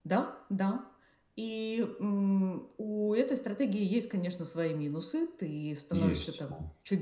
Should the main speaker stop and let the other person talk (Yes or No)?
No